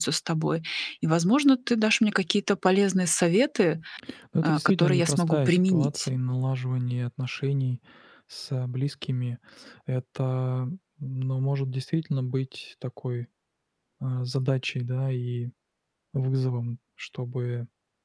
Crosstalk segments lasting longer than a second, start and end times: 4.4-6.0

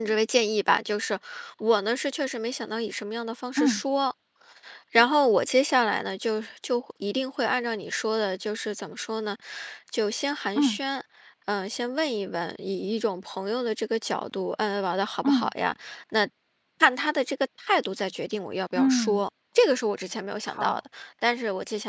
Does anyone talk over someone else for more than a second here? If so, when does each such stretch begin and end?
none

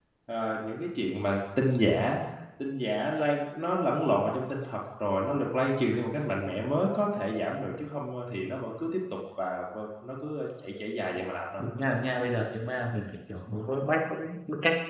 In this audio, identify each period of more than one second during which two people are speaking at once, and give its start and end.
none

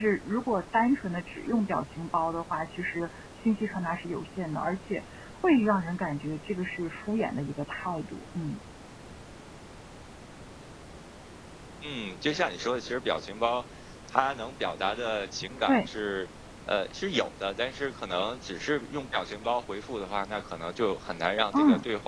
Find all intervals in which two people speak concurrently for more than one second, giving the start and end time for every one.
none

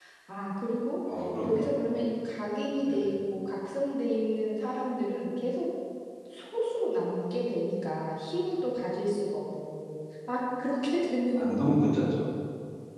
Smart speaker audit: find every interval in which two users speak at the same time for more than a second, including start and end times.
none

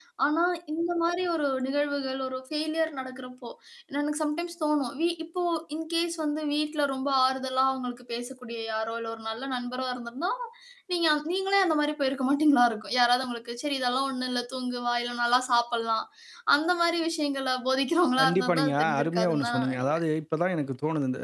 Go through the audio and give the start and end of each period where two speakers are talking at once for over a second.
18.2-20.0

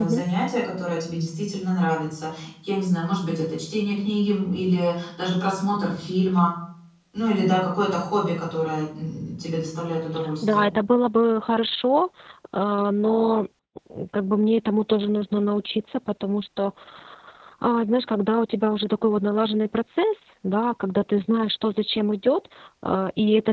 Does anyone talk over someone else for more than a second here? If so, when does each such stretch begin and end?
none

